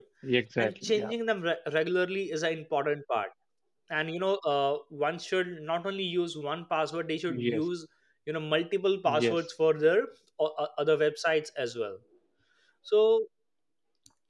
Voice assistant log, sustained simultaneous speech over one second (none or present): none